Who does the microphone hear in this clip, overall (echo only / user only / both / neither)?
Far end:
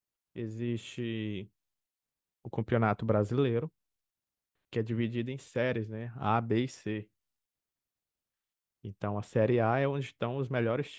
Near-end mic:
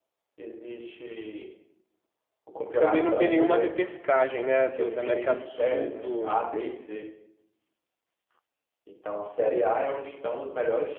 both